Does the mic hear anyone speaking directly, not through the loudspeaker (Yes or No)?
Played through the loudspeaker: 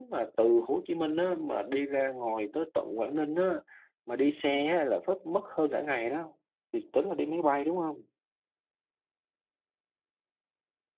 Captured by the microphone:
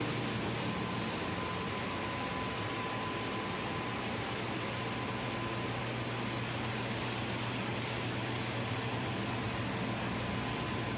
No